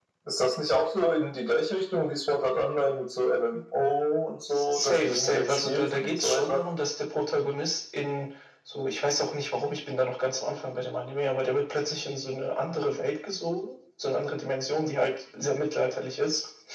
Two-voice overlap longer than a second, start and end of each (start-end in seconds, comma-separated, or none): 4.7-6.6